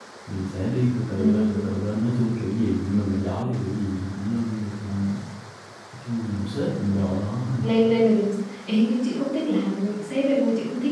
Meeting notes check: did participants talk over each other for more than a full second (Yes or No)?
No